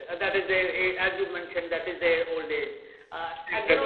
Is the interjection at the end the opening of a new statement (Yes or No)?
No